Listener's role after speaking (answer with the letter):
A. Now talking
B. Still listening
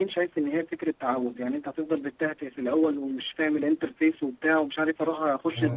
B